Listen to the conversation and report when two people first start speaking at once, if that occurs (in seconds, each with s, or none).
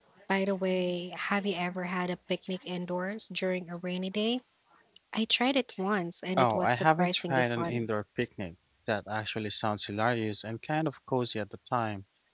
6.4 s